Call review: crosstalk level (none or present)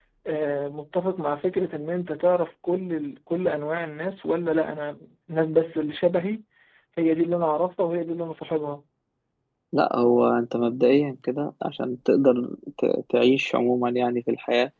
none